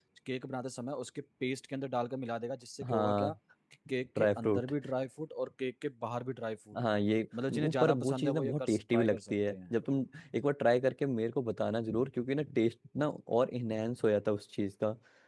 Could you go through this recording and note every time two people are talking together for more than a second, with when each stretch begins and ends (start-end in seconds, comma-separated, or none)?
7.5-9.7